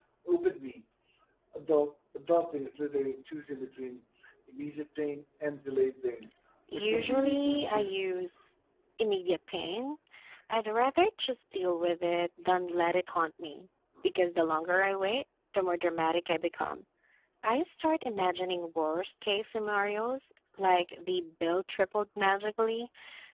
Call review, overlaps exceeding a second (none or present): present